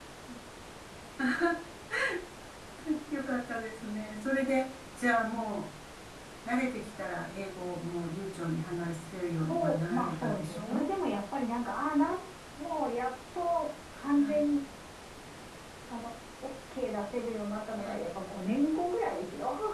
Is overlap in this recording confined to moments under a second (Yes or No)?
No